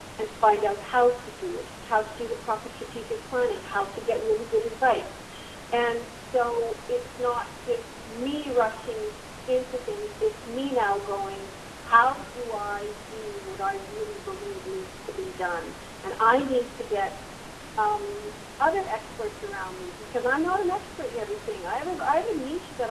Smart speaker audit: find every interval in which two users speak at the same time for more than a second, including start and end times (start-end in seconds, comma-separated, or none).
none